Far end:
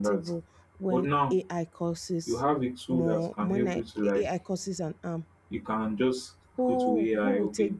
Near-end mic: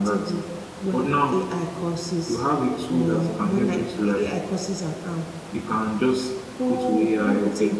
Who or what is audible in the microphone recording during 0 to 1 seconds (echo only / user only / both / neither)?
echo only